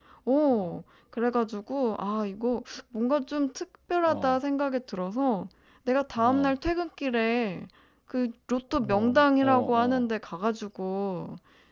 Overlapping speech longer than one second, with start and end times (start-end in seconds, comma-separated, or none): 8.8-10.1